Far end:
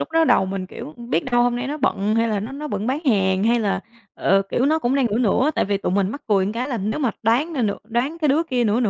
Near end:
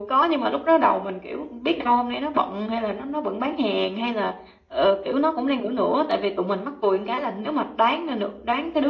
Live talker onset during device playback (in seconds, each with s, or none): none